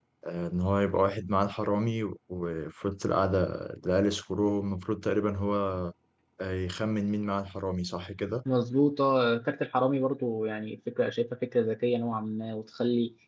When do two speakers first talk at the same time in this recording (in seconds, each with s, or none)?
none